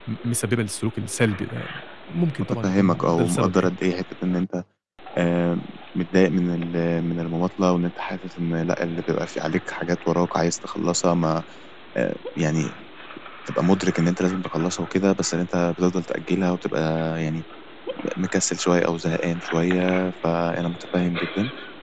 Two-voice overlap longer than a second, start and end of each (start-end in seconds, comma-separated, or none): 2.4-3.7